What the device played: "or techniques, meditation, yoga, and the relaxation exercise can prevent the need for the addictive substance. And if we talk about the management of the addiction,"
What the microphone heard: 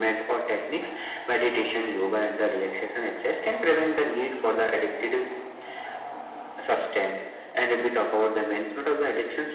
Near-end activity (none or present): none